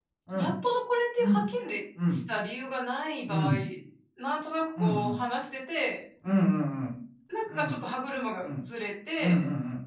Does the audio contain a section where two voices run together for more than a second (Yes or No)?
No